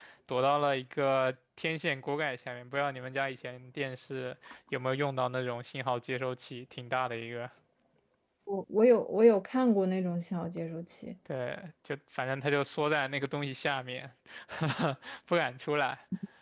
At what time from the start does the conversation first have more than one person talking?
none

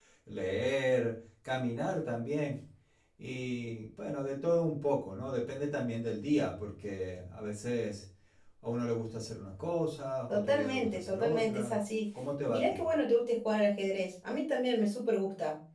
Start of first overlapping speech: 10 s

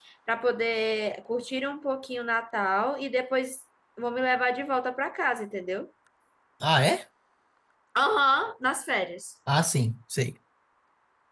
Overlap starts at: none

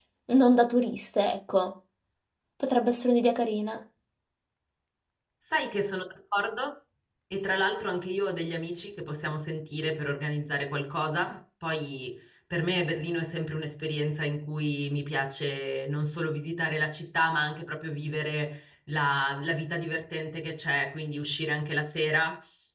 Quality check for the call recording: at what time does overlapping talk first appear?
none

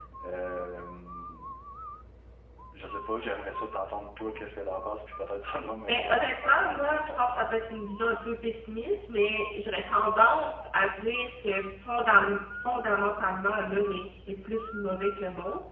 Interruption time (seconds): 6 s

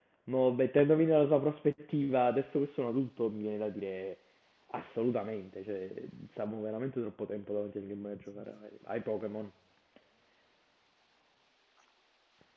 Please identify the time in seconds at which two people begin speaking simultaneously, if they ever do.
none

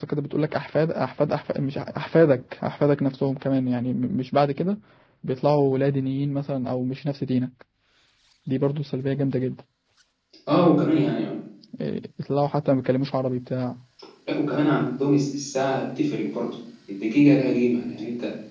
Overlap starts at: none

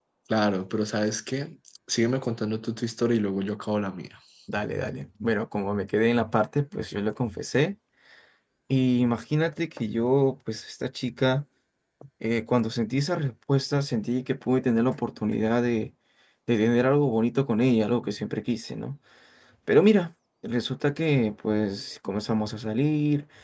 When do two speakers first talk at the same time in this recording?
none

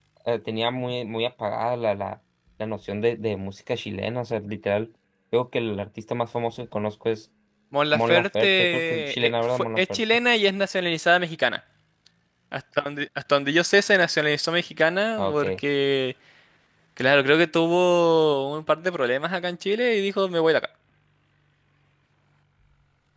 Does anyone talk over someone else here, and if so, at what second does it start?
8 s

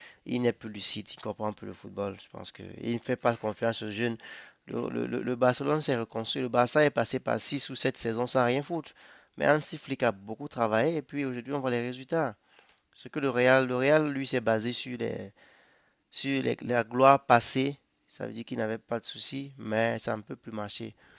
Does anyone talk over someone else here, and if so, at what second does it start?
none

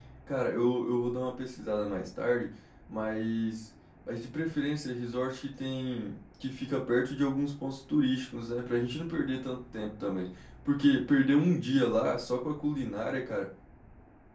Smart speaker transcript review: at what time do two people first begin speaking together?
none

